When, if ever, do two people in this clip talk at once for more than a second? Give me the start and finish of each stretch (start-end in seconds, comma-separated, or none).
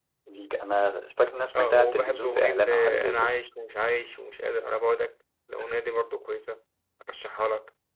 1.5-3.3